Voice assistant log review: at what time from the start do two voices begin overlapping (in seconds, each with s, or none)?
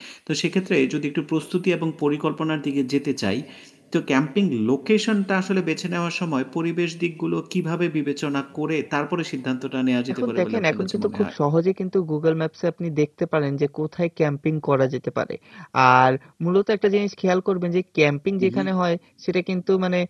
10.1 s